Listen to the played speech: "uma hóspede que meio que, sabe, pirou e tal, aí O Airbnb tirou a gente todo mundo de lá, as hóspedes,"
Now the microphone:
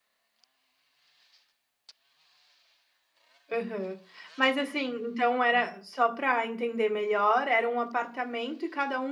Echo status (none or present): none